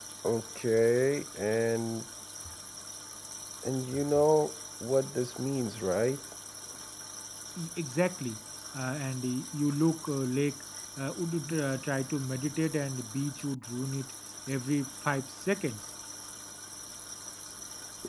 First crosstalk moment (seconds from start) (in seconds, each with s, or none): none